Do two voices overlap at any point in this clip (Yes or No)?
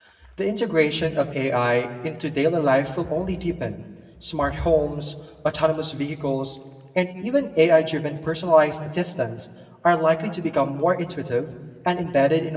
No